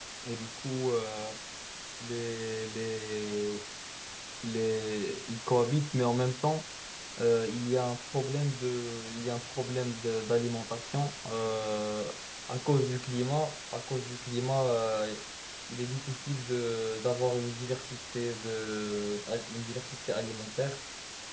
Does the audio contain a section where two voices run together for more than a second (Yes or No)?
No